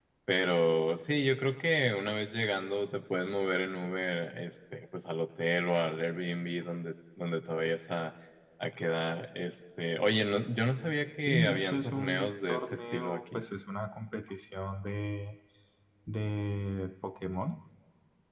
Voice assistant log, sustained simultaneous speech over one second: present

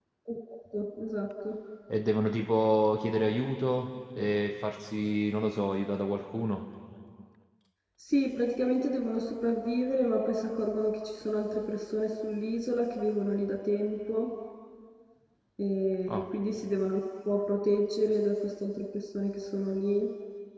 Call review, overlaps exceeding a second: none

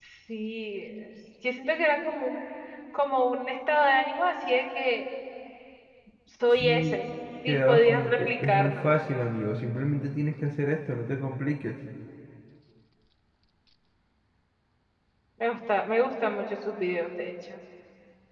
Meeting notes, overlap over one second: present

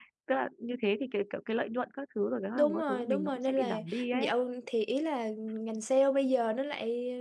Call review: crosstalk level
present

